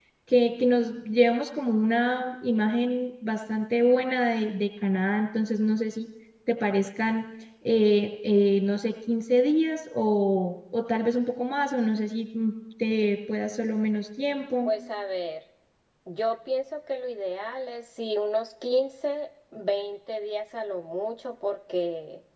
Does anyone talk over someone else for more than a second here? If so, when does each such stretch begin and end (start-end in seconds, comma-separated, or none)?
none